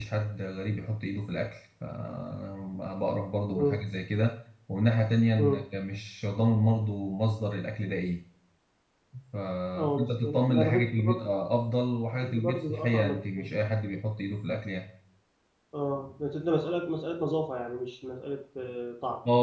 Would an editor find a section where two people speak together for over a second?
Yes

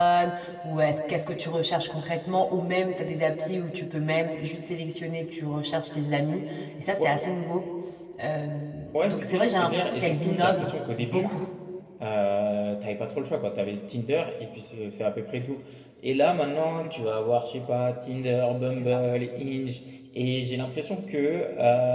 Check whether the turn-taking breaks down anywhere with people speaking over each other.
Yes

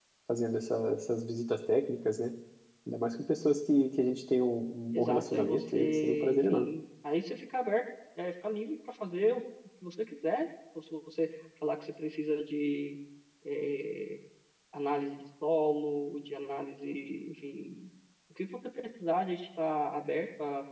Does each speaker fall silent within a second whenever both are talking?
No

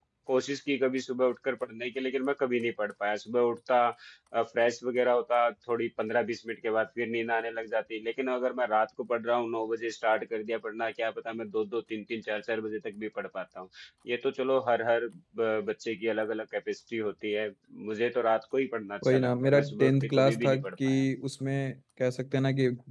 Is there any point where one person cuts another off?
Yes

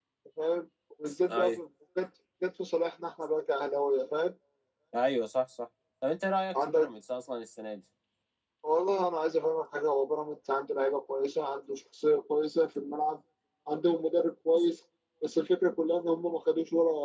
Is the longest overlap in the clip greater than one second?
No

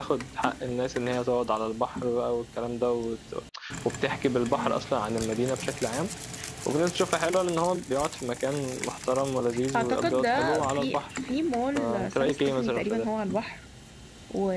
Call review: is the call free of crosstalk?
No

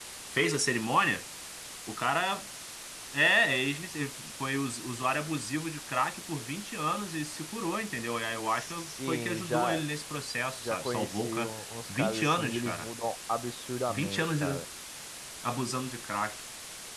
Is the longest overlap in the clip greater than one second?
Yes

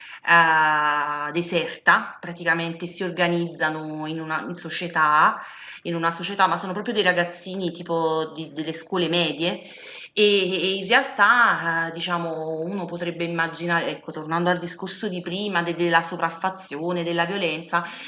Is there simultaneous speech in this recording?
No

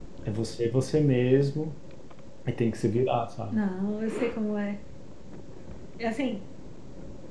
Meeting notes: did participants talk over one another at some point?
No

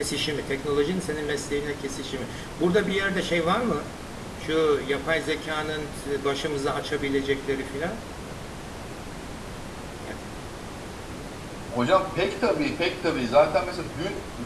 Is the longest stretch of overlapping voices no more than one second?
Yes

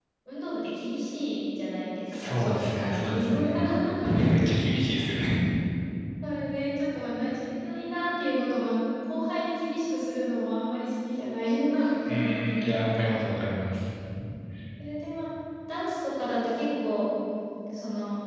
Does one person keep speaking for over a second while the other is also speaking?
Yes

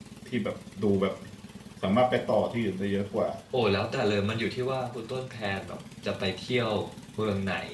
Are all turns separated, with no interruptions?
Yes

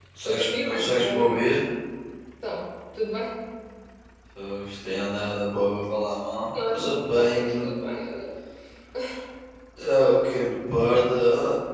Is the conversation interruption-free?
No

